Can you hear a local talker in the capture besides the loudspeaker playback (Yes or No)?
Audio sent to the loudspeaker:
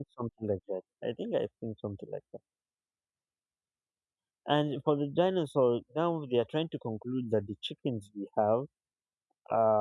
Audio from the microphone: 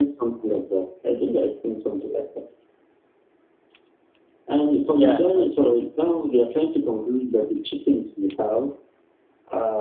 Yes